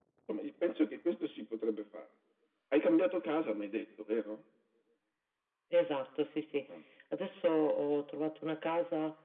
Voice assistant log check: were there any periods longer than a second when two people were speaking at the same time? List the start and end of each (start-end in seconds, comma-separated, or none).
none